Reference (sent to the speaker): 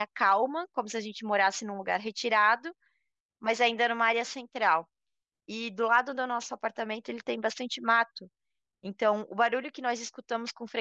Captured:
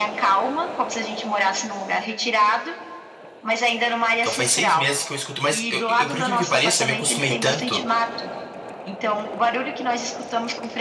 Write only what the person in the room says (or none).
Então faz seis meses que eu escuto, mas eu, eu, por incrível que pareça, eu me acostumei tanto